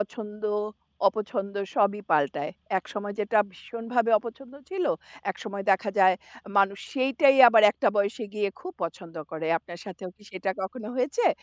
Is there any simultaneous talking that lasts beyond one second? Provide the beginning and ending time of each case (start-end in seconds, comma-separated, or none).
none